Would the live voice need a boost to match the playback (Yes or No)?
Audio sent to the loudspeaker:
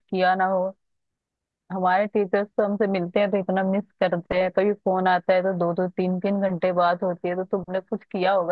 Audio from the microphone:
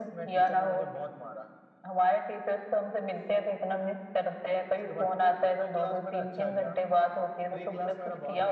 Yes